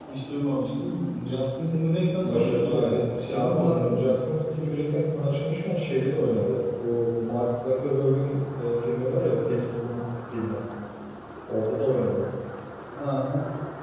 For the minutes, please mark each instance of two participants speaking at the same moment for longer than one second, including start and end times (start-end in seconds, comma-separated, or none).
2.2-4.1